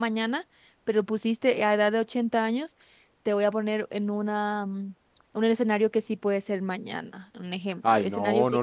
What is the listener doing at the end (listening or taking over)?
taking over